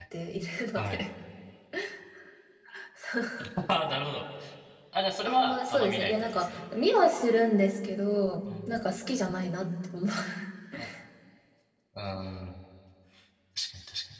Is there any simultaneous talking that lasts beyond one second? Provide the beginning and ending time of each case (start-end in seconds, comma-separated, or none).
5.2-6.5